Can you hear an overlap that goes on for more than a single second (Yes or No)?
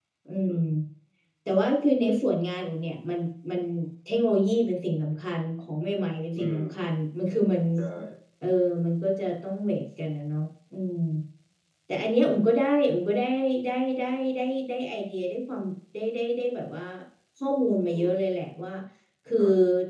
No